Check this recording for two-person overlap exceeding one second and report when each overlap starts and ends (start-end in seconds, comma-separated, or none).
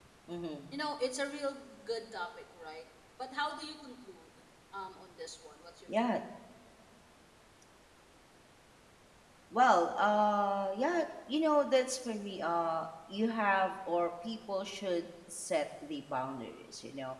none